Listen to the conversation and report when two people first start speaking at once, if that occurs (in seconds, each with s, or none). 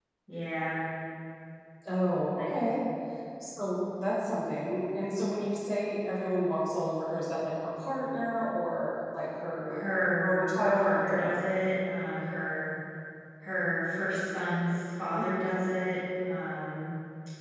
9.7 s